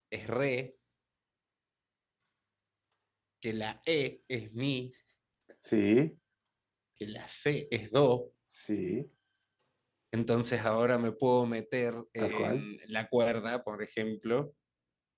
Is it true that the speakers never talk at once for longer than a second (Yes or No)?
Yes